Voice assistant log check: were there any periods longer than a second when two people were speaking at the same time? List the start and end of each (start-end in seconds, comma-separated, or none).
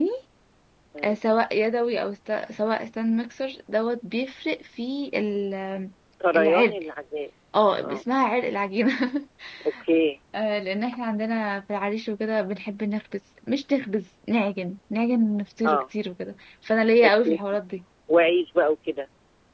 none